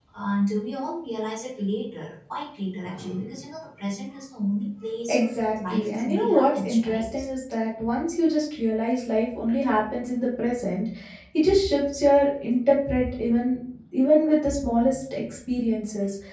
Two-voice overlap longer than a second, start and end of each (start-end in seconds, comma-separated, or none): 5.7-7.0